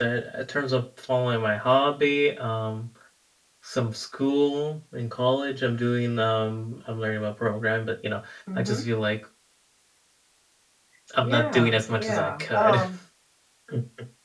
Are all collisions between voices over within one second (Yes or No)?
No